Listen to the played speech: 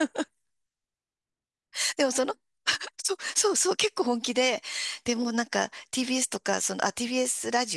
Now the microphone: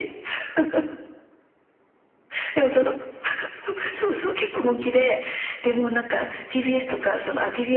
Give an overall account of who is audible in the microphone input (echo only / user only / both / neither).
echo only